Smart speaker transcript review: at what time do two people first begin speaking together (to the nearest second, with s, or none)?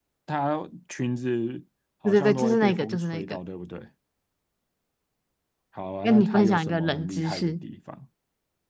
2 s